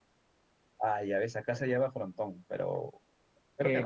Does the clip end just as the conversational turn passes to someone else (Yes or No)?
Yes